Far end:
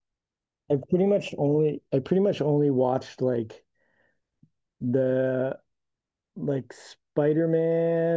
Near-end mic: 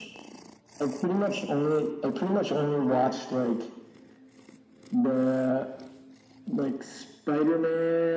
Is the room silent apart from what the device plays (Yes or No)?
Yes